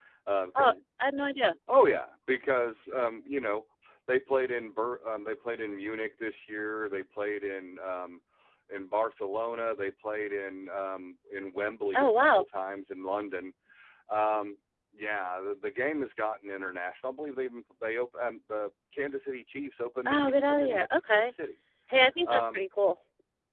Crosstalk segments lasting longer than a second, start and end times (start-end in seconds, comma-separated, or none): 20.1-21.3